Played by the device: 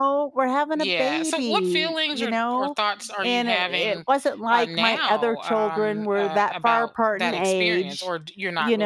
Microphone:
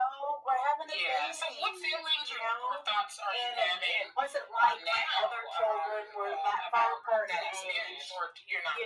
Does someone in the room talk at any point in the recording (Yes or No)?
No